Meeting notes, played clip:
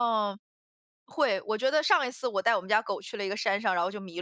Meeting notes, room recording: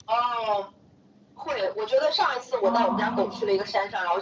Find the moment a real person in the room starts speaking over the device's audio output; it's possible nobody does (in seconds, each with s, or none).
2.6 s